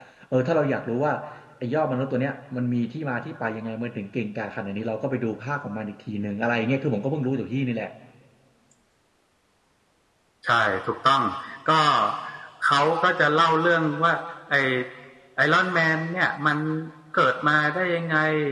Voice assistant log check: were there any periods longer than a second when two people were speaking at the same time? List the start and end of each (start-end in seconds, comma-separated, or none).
none